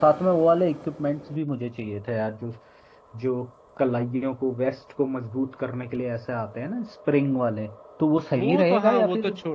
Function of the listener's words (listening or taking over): taking over